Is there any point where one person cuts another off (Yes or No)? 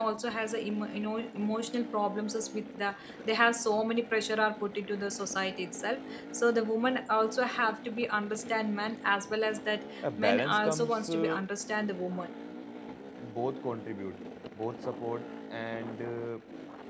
Yes